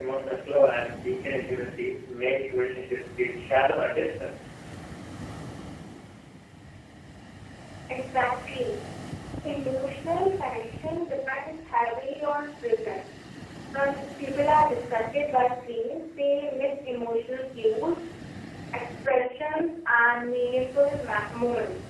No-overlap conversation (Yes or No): Yes